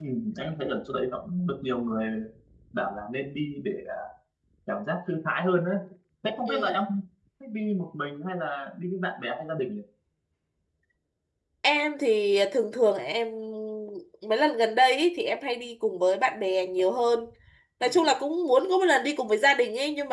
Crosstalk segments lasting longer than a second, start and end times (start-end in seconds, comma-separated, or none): none